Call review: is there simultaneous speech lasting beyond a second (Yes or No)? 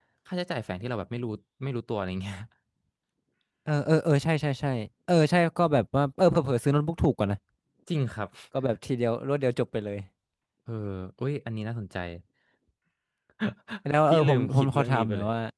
Yes